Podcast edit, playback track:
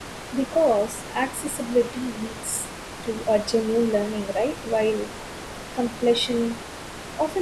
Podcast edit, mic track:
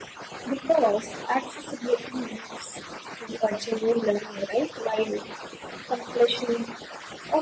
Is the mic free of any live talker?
Yes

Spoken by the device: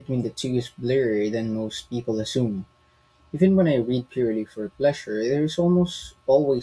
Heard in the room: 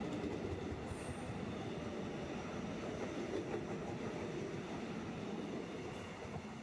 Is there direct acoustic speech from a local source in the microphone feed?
No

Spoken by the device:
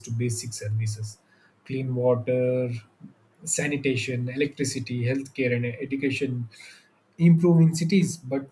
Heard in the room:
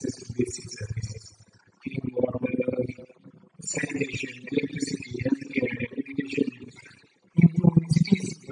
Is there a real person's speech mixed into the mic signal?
No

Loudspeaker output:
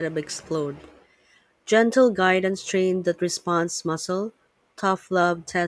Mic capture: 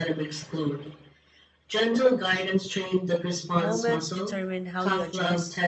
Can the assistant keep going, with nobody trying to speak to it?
No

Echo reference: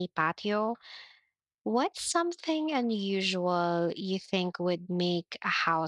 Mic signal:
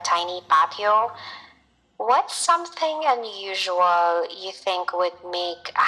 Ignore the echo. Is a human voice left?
No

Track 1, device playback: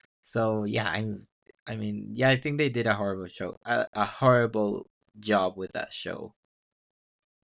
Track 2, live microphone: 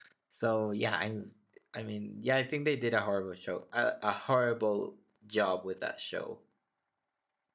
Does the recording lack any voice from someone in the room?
Yes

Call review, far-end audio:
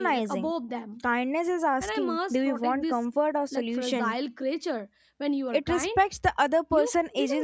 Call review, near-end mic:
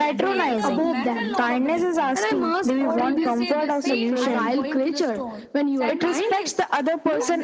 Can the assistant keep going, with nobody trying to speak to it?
No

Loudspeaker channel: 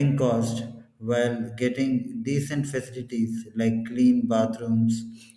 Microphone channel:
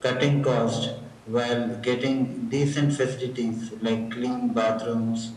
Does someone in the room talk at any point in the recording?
No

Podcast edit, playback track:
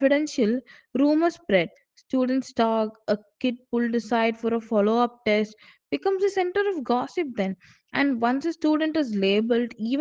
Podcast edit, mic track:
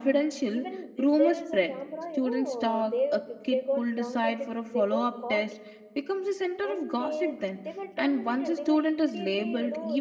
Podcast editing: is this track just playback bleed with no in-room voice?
No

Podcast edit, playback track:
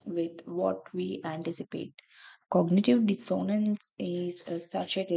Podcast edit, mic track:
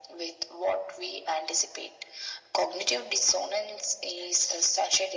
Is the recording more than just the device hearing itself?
No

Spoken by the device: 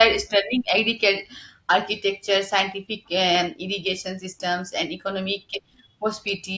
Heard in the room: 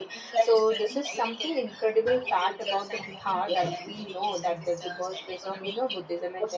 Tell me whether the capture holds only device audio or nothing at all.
No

